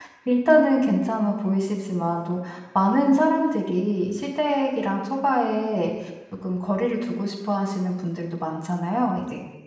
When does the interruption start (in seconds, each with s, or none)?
none